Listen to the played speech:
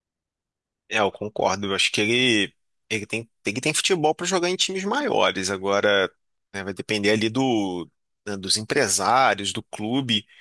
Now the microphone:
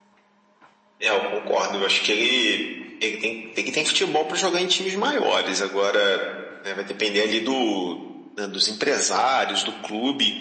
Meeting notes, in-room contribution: none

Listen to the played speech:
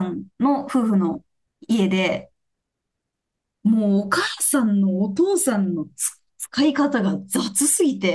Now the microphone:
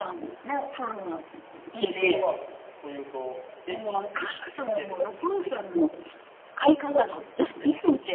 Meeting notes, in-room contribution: present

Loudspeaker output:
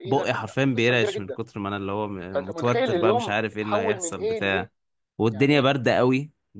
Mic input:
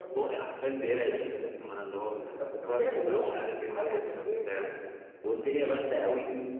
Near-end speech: none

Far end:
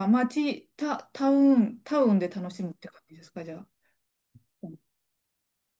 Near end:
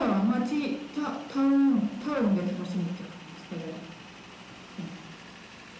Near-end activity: none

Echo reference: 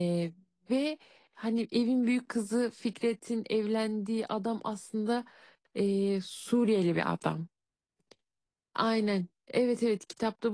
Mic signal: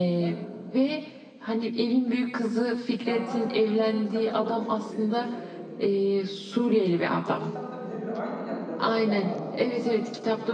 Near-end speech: present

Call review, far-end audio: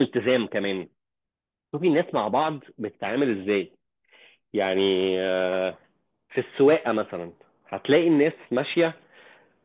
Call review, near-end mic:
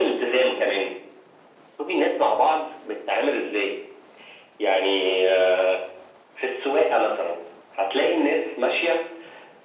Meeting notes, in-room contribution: none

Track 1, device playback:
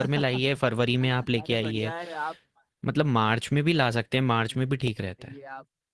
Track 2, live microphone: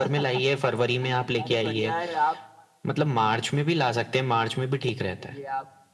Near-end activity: none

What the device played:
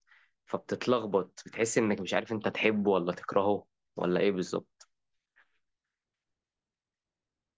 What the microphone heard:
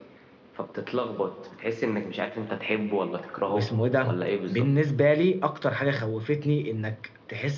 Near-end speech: present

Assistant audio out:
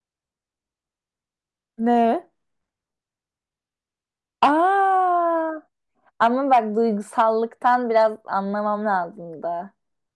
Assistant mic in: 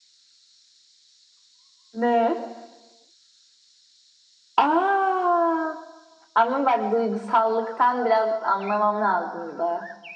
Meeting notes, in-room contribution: none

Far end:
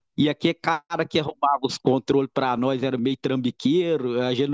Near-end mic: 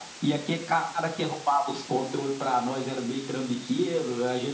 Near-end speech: none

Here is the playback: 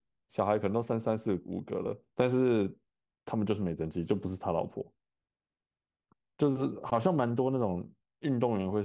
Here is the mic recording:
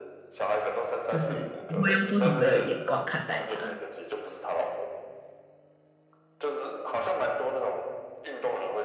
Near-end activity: present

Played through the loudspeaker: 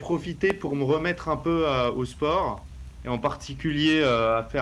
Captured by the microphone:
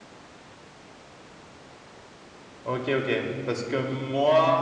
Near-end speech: present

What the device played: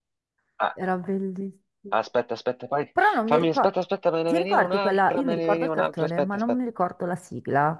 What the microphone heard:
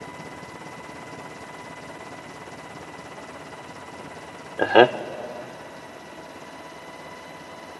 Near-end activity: present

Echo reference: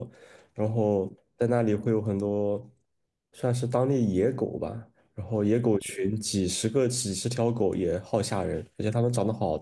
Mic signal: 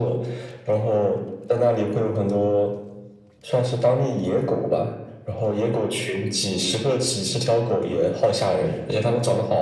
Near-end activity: none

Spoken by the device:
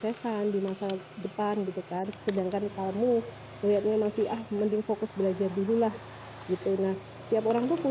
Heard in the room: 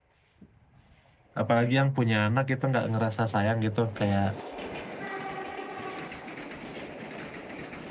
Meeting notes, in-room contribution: present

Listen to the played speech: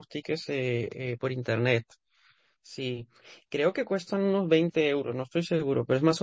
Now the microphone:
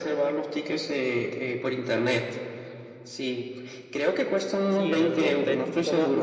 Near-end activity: present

